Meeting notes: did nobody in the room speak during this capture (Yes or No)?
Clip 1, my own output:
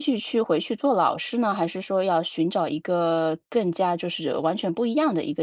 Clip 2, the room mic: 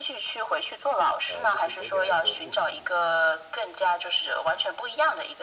No